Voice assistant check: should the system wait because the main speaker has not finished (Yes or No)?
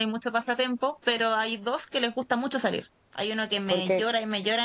Yes